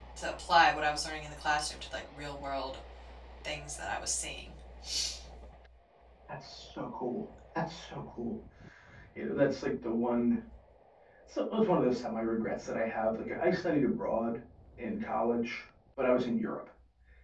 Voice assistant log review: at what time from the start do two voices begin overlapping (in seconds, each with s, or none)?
none